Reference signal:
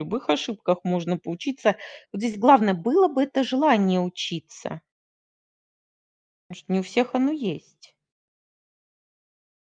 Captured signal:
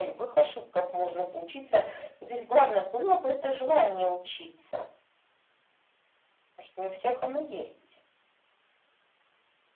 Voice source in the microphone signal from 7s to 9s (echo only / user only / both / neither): echo only